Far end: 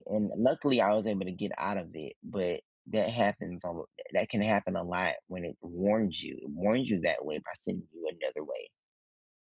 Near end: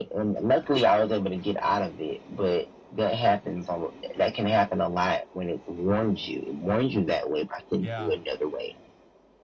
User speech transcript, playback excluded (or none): yeah,